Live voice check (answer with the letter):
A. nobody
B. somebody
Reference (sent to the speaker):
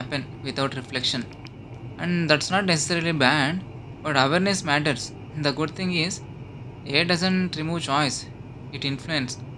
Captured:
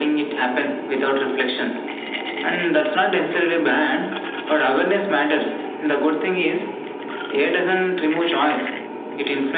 A